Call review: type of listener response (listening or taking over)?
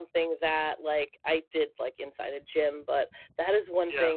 listening